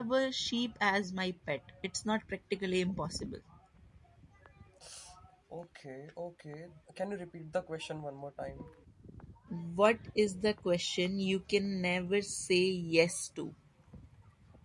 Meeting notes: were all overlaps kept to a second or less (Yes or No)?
Yes